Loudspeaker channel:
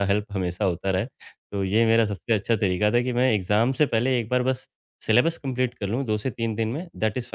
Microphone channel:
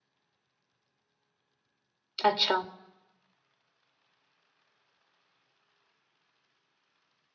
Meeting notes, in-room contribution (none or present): present